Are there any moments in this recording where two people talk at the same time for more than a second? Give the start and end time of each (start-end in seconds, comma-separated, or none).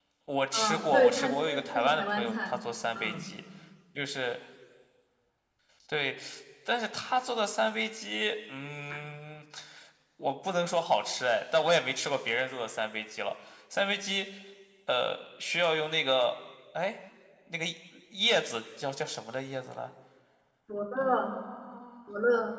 0.5-2.5